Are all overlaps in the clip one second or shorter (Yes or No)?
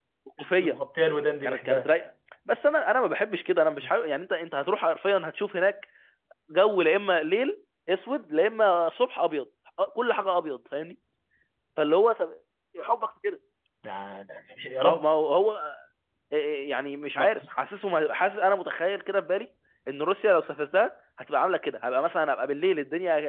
Yes